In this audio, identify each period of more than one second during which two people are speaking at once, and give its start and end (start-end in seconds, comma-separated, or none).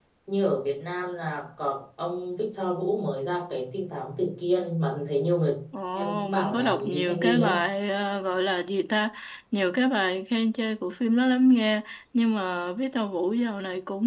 6.0-7.5